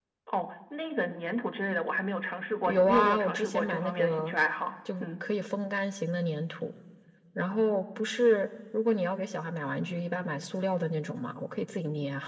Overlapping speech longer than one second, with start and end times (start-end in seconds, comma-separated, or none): 2.7-4.3